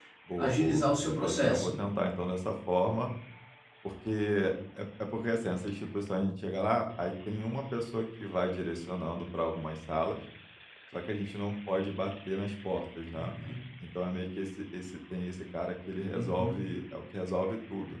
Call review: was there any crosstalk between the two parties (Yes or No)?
Yes